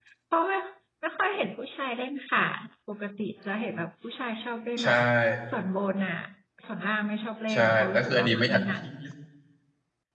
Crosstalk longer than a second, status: present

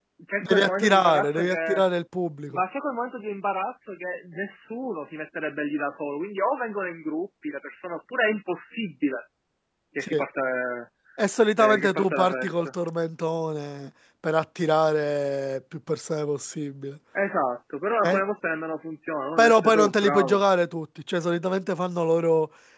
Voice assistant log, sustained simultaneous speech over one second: present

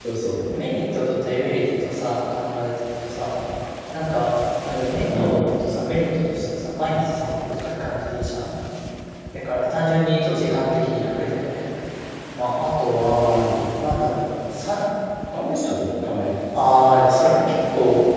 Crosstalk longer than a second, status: none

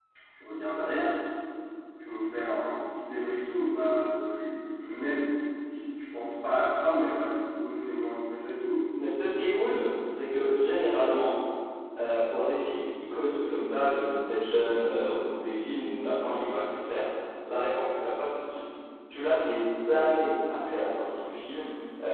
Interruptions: none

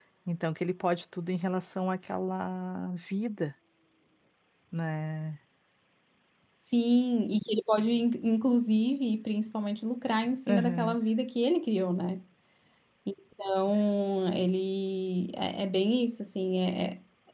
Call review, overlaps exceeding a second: none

